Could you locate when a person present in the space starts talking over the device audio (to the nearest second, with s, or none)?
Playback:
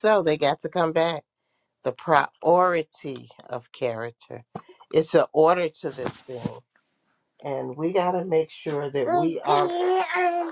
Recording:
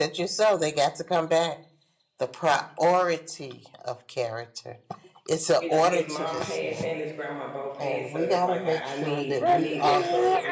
6 s